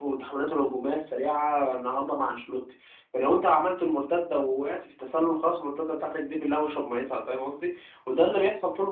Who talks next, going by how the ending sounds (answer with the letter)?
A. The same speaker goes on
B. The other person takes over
A